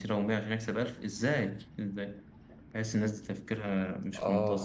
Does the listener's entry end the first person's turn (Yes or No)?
Yes